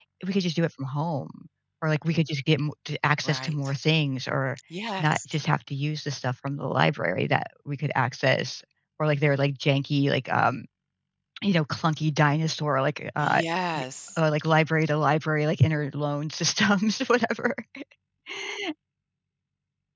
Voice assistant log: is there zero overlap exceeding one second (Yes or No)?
Yes